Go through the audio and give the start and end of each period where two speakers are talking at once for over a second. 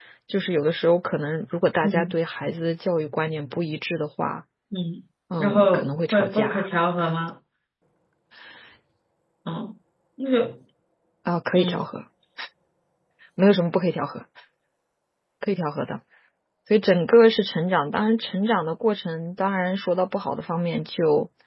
5.4-6.7

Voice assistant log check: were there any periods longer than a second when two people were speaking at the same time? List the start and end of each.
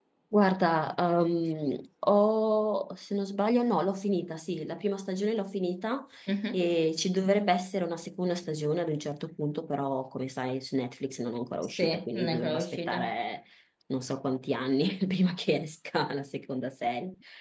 11.8-13.1

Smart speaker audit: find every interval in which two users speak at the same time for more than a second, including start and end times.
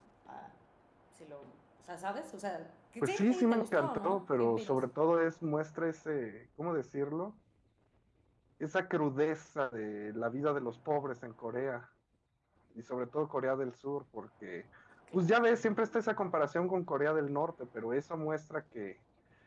3.0-4.8

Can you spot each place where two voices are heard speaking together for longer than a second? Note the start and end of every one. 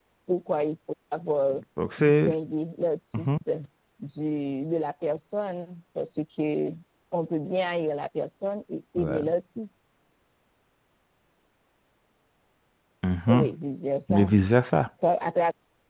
none

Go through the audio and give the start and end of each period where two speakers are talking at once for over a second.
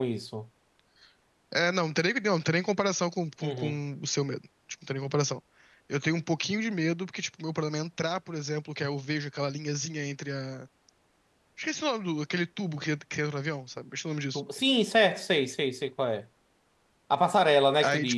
none

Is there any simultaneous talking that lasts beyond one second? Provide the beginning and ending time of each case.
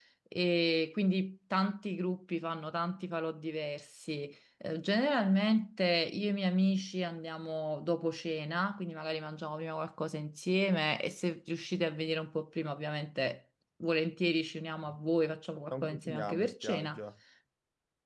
15.7-17.0

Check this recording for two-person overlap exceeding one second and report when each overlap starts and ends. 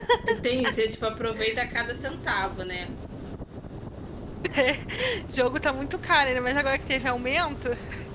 none

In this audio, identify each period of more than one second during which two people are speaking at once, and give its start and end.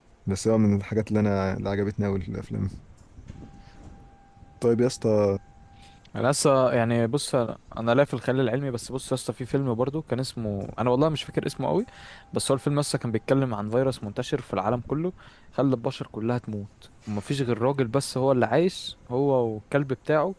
none

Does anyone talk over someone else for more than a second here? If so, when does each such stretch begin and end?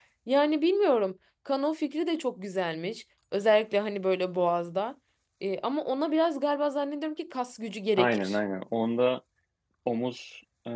none

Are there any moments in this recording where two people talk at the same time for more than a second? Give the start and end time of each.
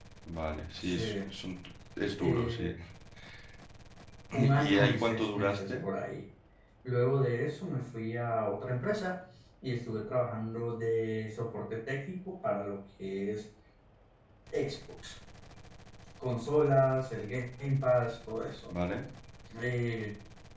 4.5-5.8

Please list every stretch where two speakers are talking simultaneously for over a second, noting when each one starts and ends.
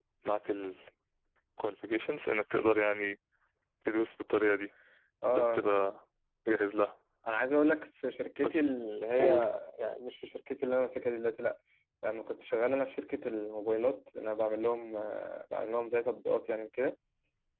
none

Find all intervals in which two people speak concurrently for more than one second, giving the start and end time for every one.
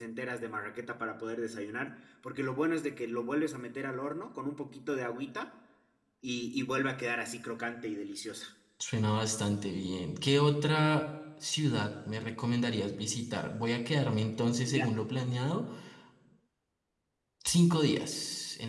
none

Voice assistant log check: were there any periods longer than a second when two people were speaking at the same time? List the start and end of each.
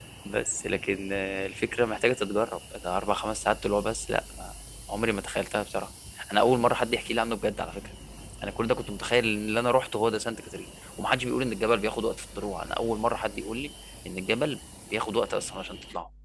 none

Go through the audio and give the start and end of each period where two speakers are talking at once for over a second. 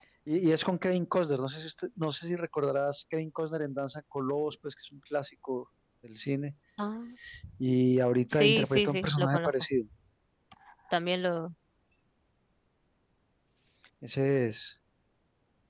8.3-9.5

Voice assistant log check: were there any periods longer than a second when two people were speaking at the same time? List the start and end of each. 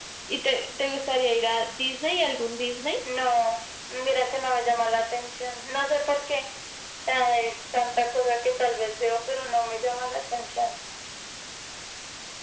none

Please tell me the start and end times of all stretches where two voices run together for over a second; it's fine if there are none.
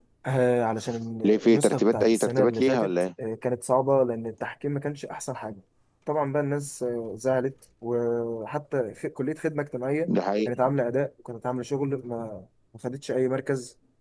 1.4-2.9

